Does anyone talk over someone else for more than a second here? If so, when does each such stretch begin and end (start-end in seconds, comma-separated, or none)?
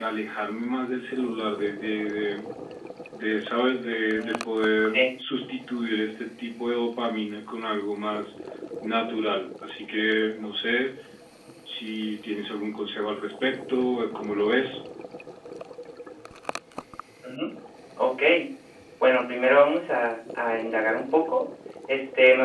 none